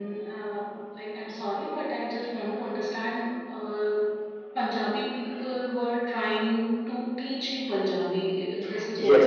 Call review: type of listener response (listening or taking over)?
taking over